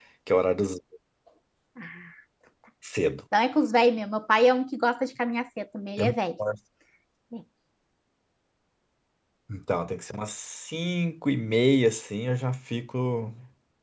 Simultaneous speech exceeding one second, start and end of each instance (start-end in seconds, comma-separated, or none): none